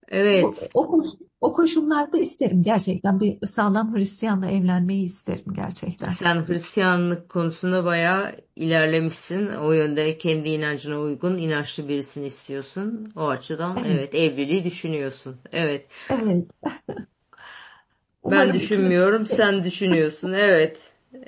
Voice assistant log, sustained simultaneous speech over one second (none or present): present